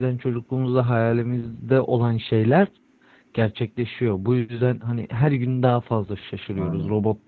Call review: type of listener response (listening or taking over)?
listening